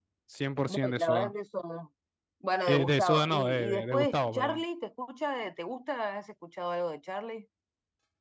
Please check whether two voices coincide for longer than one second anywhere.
Yes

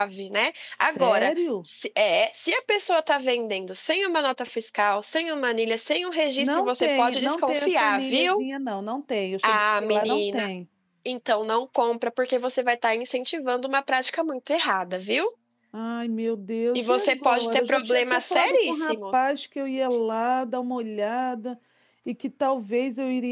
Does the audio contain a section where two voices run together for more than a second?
Yes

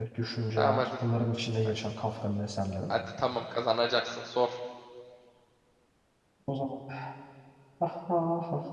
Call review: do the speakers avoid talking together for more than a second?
Yes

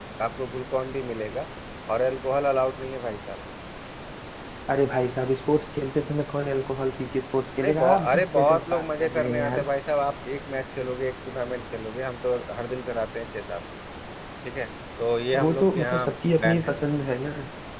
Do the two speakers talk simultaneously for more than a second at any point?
Yes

